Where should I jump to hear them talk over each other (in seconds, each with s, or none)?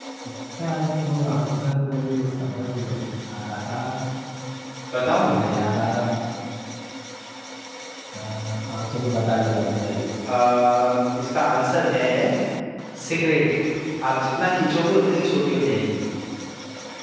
none